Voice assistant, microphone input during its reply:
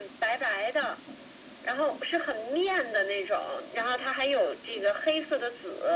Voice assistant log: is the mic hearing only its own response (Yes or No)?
Yes